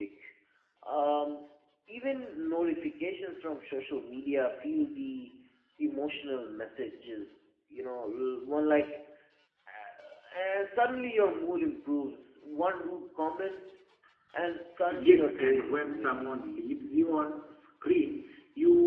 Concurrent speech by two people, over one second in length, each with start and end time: 14.9-16.2

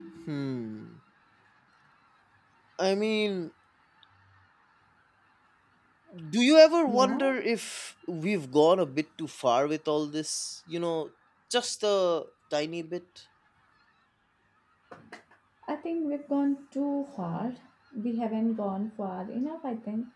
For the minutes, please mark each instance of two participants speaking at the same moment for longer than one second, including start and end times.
none

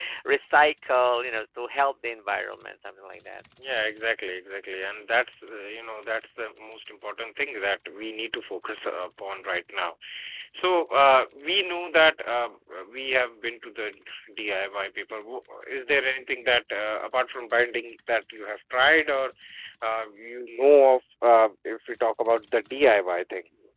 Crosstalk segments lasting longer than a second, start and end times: none

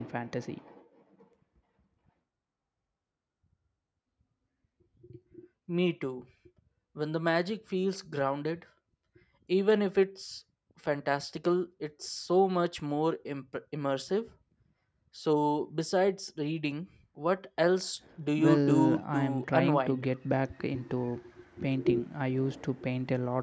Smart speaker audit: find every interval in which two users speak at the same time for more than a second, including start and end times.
18.4-20.0

